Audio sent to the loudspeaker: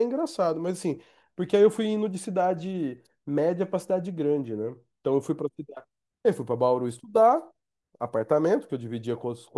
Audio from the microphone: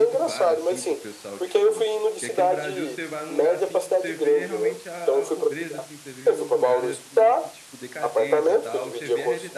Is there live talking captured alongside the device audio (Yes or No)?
Yes